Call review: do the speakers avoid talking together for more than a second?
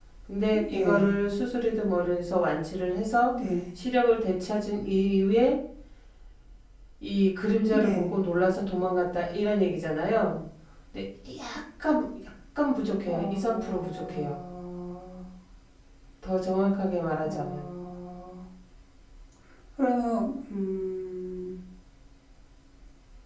No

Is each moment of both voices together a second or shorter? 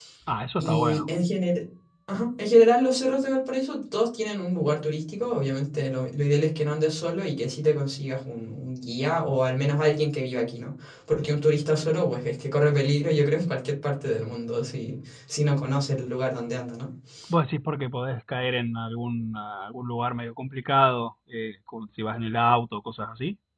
Yes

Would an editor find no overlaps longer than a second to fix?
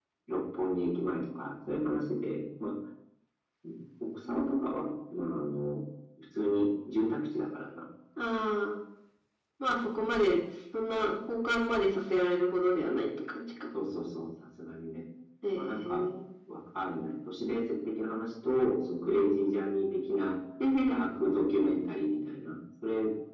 Yes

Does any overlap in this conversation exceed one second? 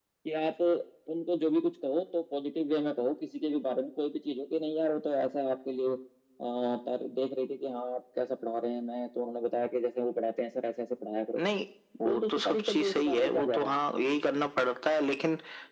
Yes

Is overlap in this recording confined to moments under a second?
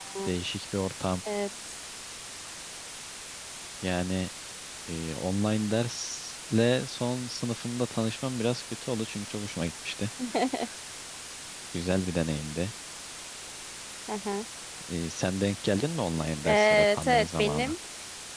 No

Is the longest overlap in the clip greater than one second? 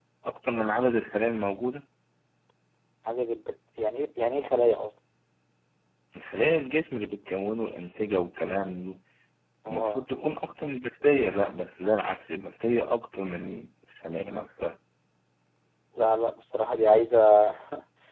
No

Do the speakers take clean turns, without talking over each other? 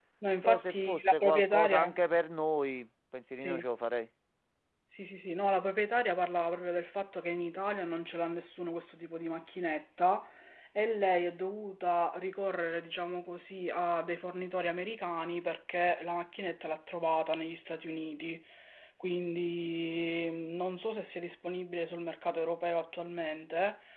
No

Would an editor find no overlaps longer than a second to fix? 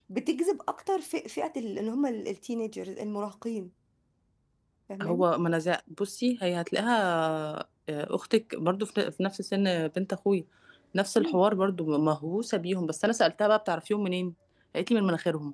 Yes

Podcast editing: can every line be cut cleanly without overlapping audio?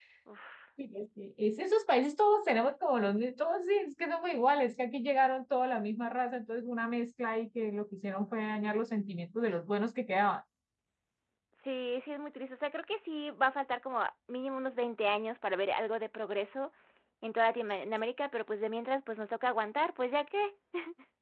Yes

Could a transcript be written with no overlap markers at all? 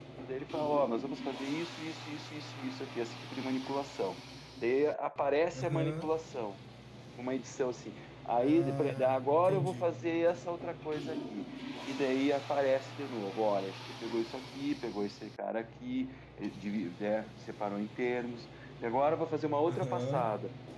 No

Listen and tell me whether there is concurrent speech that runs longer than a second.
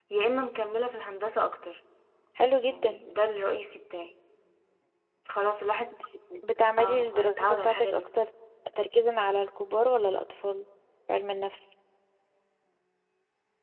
Yes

